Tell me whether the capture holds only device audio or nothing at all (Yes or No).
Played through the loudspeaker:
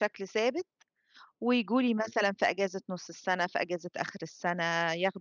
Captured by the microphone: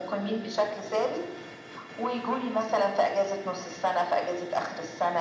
Yes